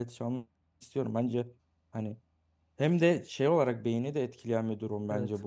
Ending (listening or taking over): listening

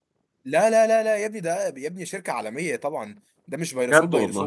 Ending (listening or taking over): listening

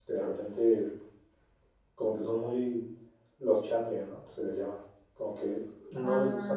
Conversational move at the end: listening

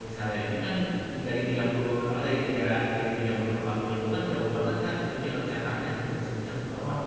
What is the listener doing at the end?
taking over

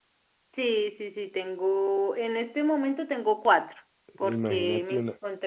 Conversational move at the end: taking over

